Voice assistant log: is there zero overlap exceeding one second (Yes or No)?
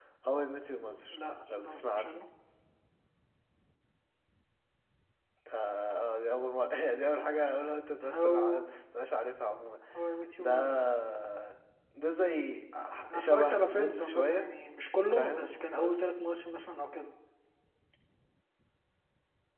No